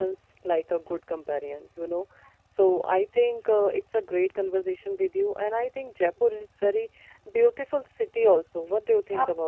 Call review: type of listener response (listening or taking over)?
taking over